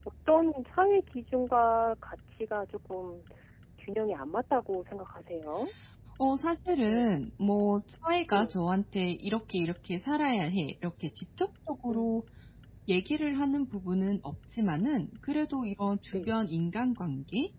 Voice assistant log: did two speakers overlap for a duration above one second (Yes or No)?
No